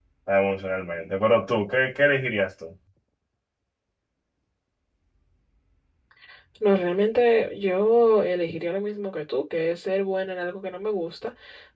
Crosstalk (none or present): none